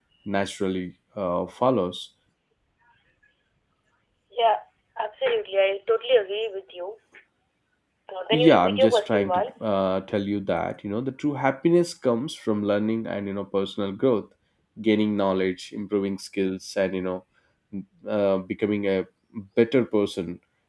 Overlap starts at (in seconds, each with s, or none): 8.3 s